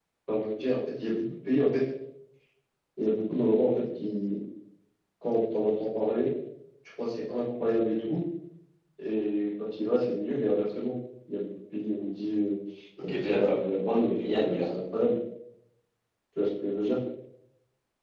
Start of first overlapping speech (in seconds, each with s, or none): 13.0 s